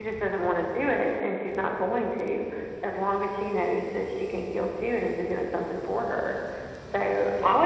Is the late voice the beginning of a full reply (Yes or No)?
No